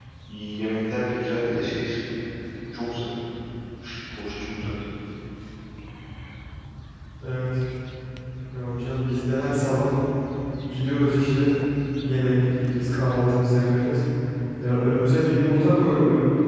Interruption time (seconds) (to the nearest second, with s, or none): none